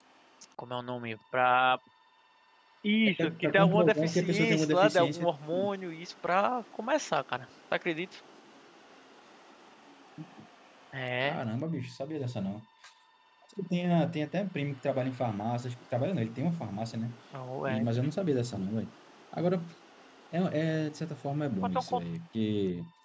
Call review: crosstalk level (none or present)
present